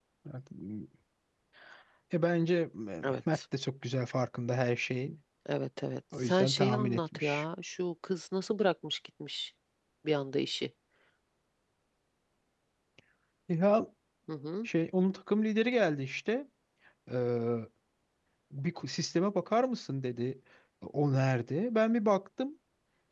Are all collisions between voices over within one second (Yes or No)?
No